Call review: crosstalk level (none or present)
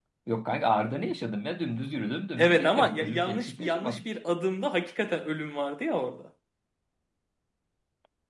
present